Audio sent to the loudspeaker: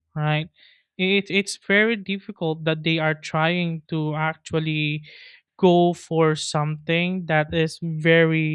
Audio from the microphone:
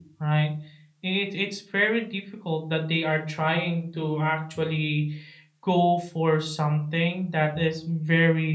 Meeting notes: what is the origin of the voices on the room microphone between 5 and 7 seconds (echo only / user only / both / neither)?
echo only